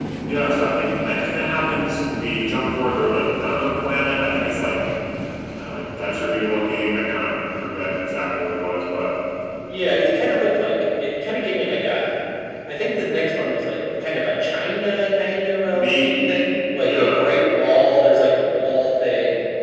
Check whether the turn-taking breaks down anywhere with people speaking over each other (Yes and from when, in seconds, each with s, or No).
Yes, from 15.7 s